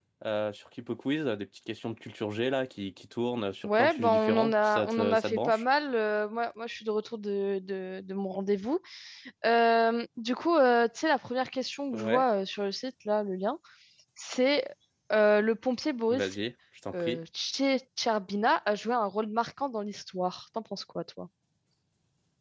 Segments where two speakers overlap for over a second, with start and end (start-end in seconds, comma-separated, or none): 3.6-5.6